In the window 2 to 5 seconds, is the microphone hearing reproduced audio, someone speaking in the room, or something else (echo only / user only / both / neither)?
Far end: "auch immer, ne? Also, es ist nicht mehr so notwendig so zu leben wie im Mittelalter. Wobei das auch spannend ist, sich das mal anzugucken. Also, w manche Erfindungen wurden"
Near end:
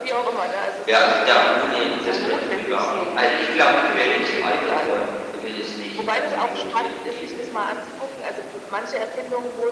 both